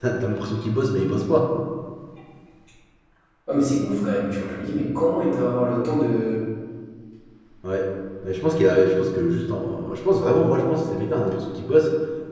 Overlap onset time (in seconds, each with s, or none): none